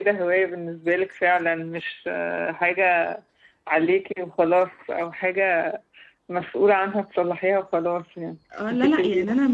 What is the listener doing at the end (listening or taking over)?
taking over